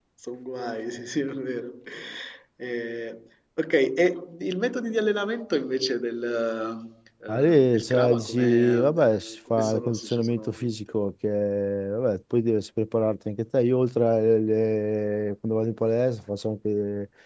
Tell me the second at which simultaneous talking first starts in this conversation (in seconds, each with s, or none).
7.3 s